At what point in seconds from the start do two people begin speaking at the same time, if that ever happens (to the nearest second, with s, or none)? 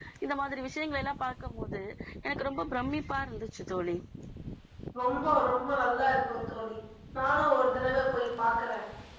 none